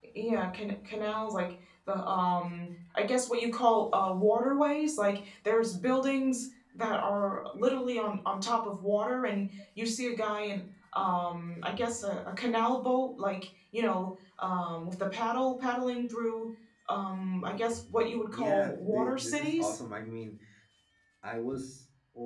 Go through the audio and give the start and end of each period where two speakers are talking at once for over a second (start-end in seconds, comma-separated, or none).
18.3-19.8